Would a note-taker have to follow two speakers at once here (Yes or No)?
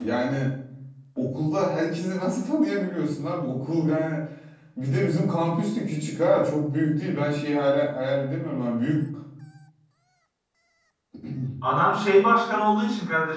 No